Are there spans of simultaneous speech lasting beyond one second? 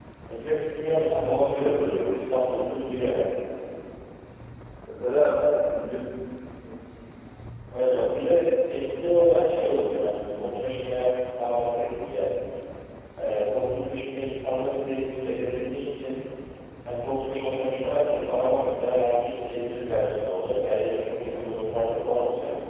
Yes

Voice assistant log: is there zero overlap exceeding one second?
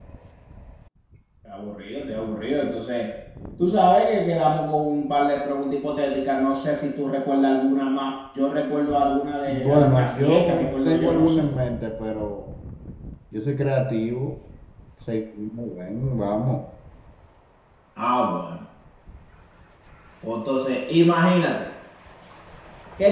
No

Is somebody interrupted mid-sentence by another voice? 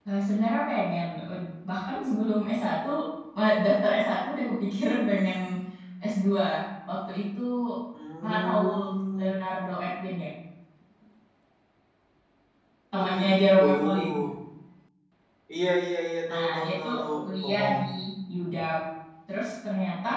Yes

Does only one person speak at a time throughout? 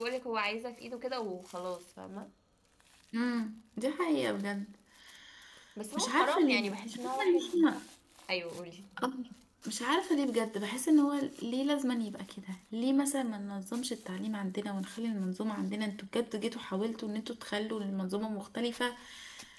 No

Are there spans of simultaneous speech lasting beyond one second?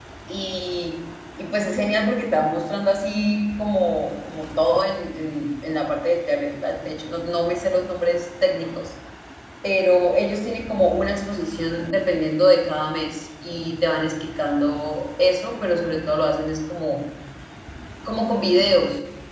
No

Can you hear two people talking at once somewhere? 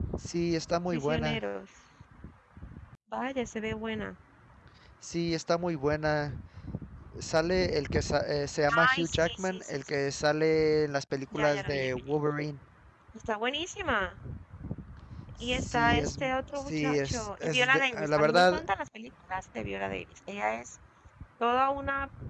Yes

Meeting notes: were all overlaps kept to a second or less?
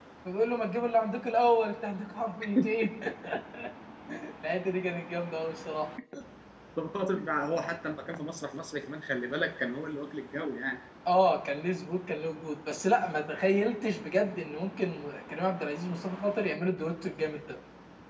Yes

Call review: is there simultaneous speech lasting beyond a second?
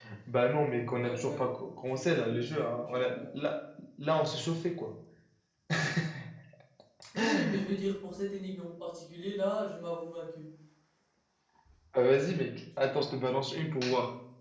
Yes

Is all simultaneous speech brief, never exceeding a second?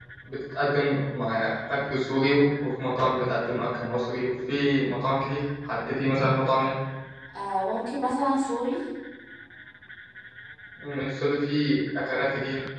Yes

